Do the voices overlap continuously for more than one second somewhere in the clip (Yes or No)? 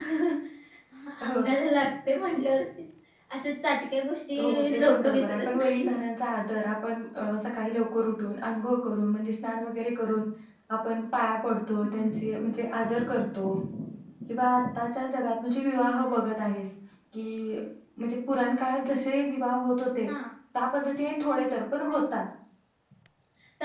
Yes